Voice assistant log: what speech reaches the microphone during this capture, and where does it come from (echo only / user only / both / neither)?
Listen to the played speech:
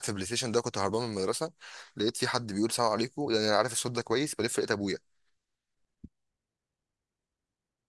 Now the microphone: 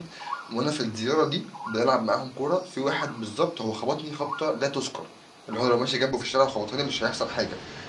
user only